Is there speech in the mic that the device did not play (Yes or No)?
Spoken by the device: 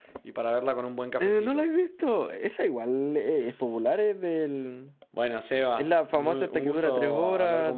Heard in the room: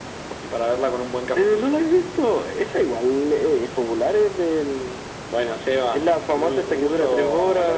No